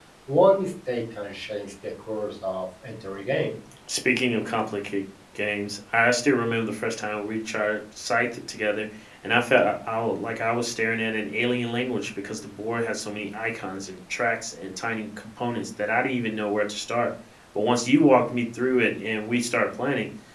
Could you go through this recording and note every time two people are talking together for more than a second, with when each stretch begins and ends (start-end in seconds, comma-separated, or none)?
none